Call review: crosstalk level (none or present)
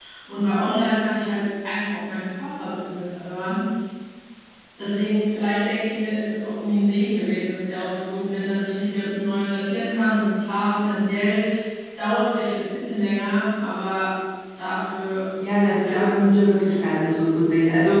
present